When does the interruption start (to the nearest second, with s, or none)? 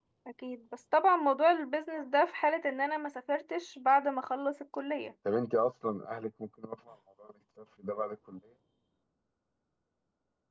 none